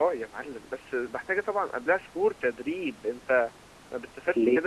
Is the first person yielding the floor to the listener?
No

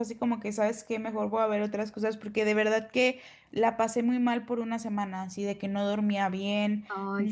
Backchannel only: Yes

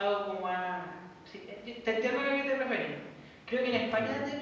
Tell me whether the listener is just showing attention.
Yes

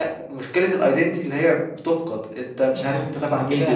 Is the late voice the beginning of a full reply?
Yes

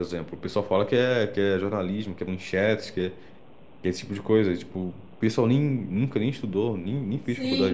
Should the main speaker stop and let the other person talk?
Yes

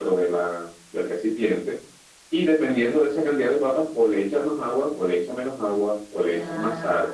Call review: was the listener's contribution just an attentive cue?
Yes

